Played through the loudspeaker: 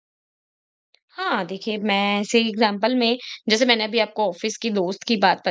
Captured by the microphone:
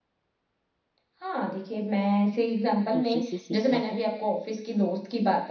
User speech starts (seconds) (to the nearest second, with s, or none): 3 s